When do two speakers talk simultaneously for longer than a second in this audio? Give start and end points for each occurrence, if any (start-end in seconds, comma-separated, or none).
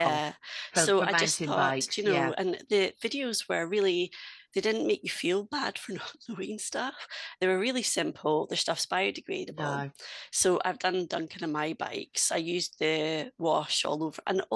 0.7-2.3